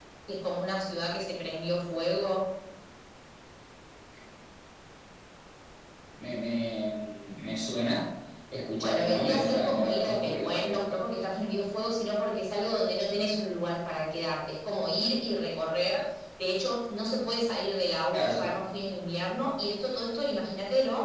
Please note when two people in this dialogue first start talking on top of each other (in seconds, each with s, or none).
8.8 s